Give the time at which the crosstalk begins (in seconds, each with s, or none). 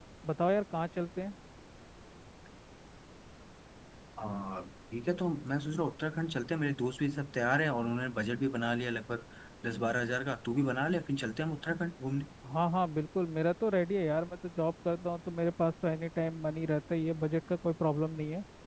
none